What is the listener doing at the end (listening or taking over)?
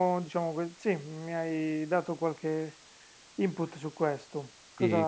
taking over